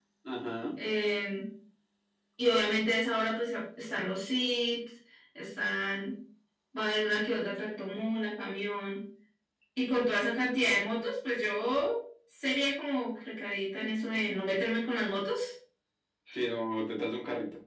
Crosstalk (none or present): none